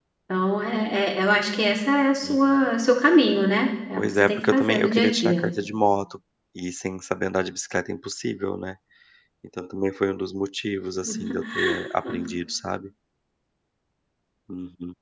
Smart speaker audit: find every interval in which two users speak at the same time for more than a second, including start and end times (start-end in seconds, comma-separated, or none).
4.0-5.4